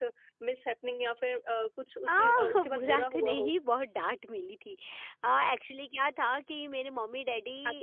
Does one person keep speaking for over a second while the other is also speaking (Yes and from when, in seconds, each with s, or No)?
Yes, from 2.1 s